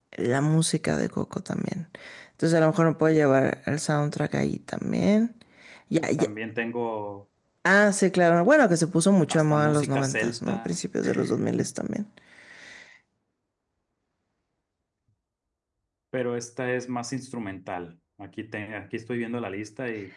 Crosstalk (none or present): present